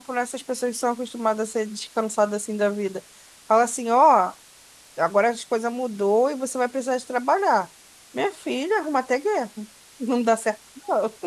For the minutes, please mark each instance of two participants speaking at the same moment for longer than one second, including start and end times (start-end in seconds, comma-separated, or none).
none